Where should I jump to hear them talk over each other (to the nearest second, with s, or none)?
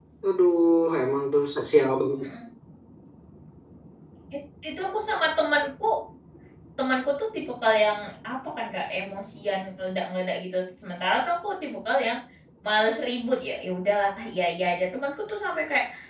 none